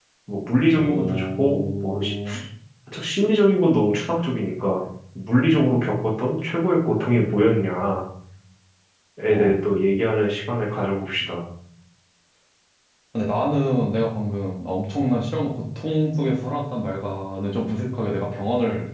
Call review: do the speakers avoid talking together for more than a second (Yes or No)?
No